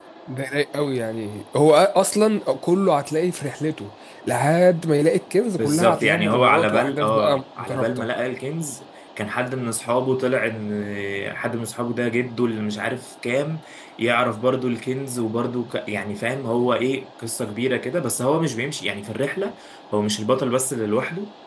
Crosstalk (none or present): present